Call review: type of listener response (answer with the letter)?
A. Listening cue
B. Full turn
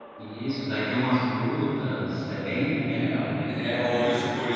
B